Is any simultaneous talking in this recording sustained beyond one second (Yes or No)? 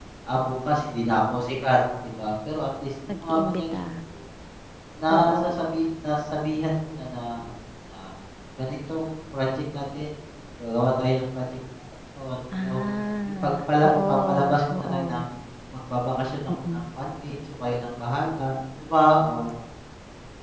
Yes